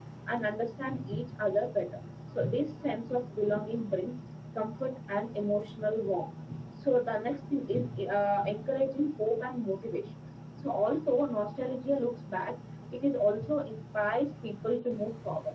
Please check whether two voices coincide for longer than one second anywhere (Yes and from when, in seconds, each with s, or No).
No